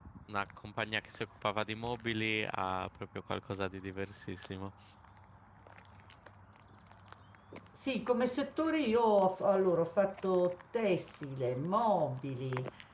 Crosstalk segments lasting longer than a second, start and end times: none

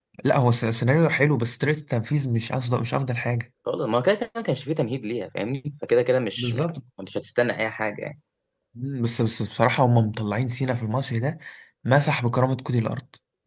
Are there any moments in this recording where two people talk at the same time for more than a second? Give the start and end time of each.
none

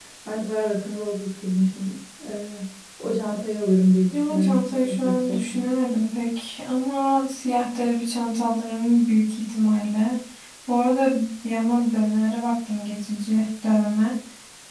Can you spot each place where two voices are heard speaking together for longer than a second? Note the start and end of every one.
4.1-5.7

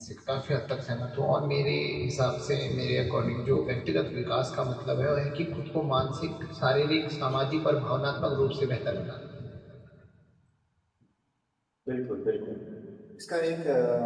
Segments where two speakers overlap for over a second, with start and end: none

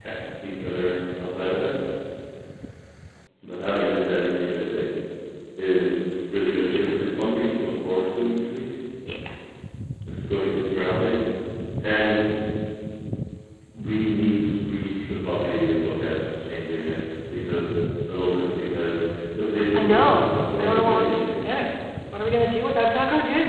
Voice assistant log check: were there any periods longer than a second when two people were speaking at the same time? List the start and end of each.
19.7-21.2

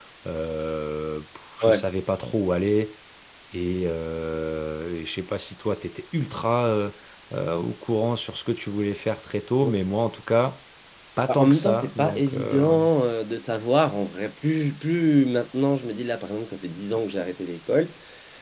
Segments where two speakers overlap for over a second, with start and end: 11.3-12.6

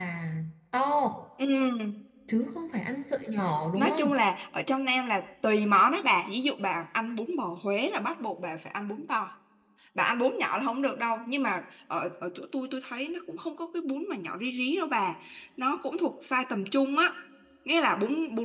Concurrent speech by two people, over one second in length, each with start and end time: none

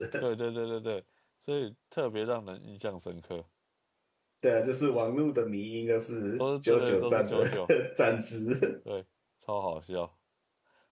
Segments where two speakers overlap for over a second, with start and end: 6.4-7.7

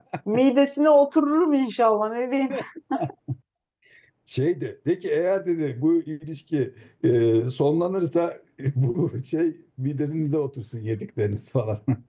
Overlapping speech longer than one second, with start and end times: none

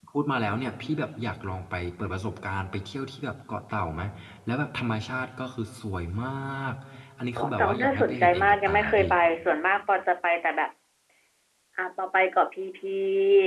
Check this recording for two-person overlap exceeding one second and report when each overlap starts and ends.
7.4-9.1

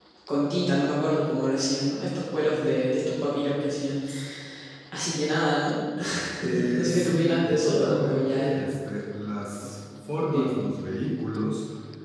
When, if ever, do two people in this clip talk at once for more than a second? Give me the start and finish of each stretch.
6.7-8.7

